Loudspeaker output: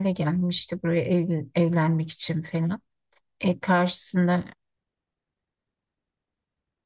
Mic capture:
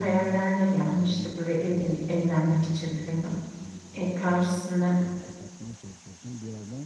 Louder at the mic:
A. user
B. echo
B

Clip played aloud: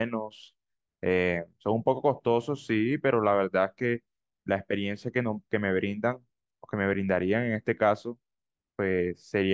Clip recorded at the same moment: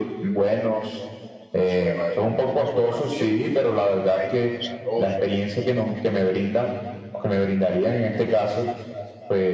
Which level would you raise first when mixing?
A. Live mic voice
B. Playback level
A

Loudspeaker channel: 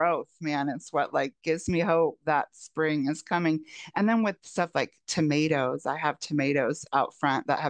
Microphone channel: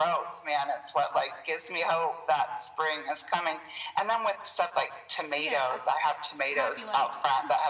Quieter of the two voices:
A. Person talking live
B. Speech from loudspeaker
A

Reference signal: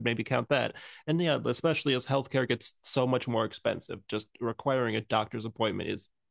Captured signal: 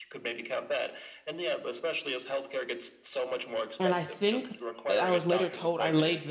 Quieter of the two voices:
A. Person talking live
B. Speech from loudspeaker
B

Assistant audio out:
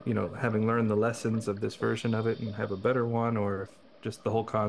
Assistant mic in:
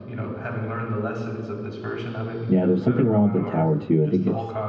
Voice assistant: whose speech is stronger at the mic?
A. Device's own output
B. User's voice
B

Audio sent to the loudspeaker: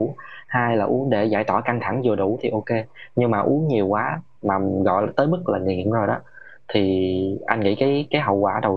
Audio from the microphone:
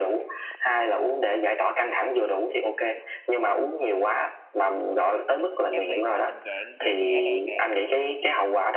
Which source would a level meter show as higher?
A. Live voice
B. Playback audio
B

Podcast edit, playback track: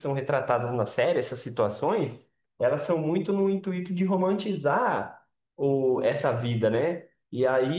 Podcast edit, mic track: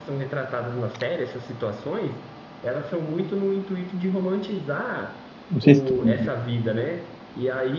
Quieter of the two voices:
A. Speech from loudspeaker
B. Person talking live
A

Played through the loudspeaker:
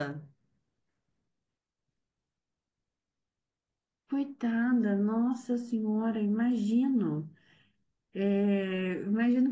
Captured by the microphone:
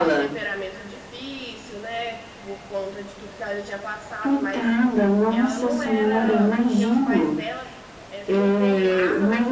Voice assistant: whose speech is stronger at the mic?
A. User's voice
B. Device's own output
B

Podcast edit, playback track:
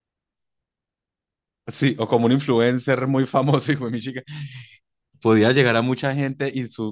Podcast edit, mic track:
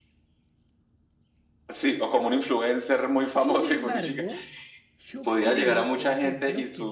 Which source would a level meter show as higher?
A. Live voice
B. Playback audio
B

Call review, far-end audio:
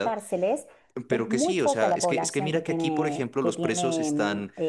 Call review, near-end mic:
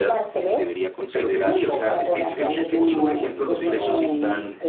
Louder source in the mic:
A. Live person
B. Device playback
B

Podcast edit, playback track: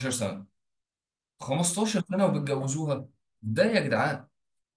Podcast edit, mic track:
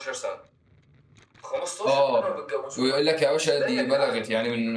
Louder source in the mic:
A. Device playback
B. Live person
B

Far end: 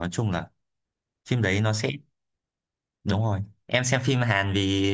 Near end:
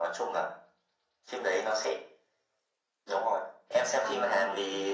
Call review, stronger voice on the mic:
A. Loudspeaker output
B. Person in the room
A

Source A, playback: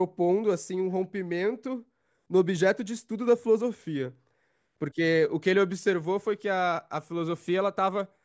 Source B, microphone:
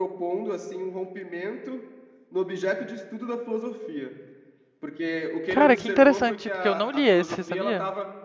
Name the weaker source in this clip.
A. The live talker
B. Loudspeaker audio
B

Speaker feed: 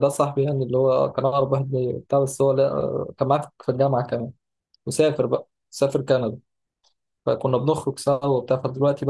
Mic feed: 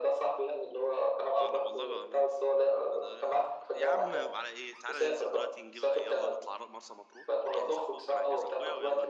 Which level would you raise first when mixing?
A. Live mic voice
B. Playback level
A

